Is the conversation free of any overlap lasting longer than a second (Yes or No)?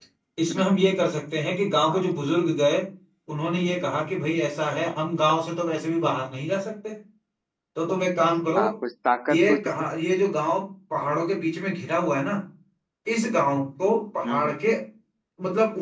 Yes